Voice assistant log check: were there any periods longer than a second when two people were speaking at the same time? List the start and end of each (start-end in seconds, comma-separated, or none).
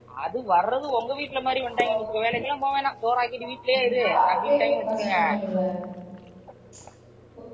3.7-5.2